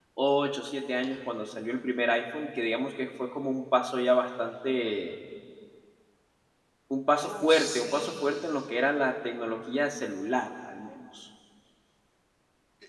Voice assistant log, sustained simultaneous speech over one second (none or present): present